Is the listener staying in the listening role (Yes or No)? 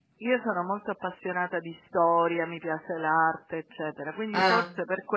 Yes